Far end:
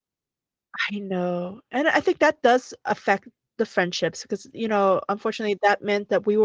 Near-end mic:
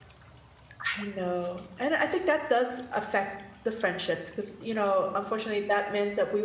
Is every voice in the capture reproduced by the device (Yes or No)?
Yes